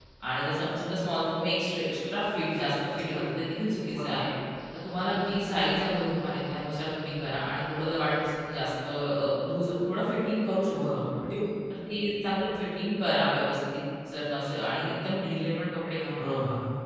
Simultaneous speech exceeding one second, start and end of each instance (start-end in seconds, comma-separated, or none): none